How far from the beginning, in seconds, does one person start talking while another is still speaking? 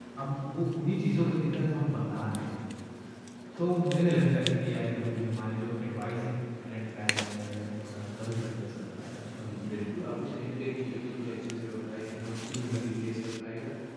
none

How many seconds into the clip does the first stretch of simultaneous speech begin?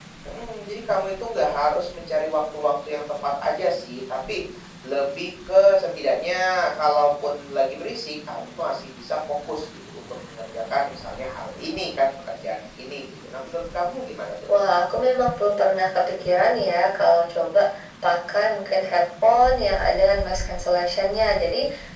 none

